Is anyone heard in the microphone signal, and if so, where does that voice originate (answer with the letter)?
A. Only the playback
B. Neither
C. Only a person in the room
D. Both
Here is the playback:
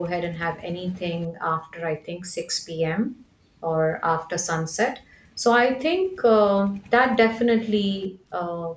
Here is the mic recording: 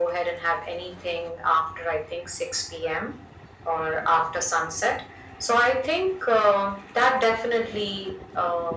A